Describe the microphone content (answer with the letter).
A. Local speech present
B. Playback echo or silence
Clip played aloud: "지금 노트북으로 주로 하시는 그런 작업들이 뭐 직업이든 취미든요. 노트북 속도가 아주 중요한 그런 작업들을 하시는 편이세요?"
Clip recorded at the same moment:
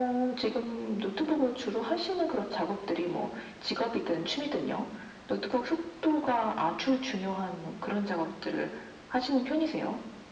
B